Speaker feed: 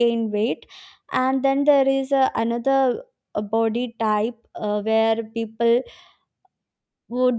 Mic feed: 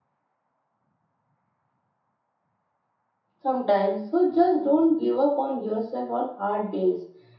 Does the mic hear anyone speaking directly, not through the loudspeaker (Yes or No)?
Yes